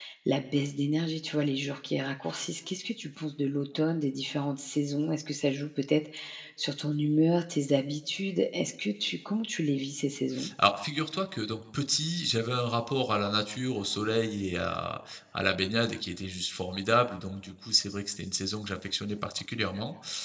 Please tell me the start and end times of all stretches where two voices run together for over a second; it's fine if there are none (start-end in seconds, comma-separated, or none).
none